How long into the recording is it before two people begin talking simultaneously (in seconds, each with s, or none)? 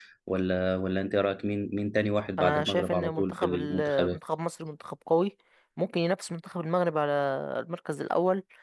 2.4 s